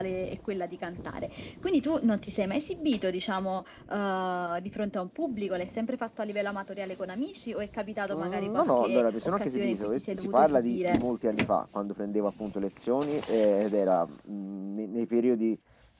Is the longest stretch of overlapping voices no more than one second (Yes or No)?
No